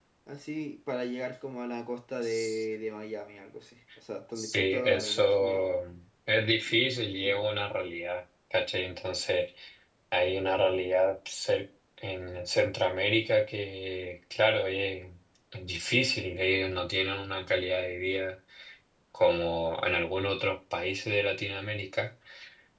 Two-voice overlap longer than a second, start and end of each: 4.4-5.7

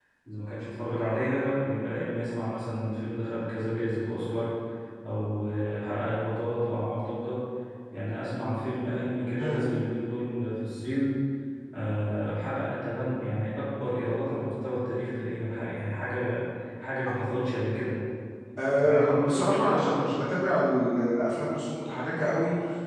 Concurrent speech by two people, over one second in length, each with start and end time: 18.8-20.2

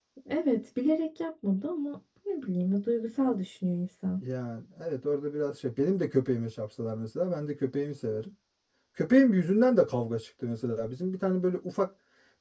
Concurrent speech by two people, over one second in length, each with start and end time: none

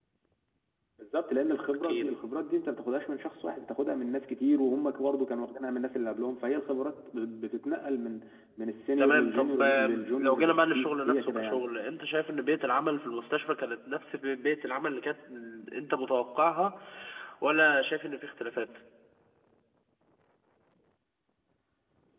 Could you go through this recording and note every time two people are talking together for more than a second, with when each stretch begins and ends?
9.0-11.6

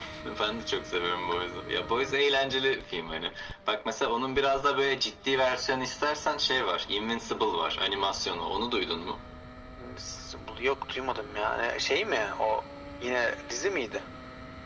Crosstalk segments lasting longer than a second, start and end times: none

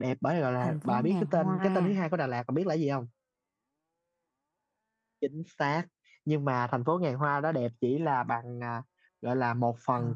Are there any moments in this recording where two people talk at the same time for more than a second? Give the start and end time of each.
0.6-2.0

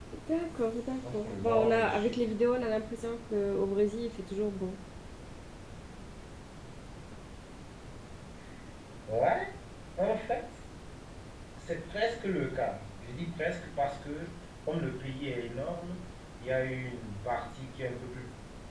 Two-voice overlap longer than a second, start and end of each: 1.0-2.3

